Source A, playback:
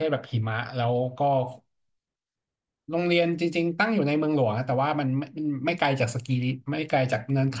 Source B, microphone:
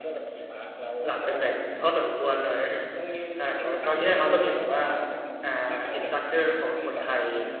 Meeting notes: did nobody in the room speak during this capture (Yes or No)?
No